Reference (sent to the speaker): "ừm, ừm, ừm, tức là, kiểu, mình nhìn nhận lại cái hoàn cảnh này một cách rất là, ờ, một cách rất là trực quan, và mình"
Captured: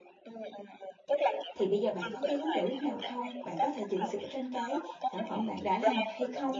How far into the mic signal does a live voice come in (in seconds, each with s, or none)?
1.6 s